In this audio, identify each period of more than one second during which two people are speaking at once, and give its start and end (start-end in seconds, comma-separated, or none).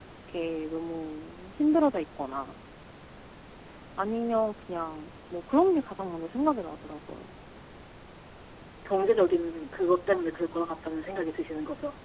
none